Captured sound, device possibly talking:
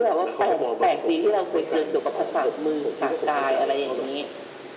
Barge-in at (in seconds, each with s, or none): none